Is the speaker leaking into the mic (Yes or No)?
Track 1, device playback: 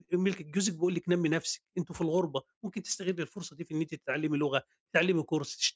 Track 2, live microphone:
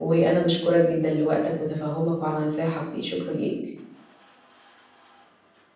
No